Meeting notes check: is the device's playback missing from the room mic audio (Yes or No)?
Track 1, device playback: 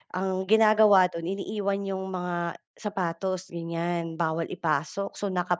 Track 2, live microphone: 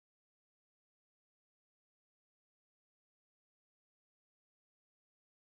Yes